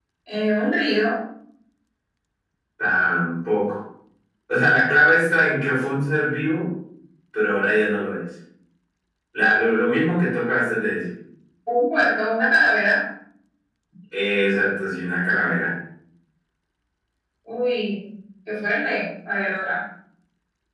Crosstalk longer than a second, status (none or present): none